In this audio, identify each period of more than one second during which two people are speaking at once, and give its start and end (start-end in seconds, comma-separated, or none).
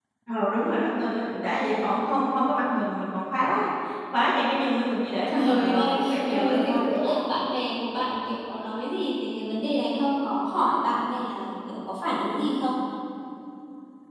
5.3-6.9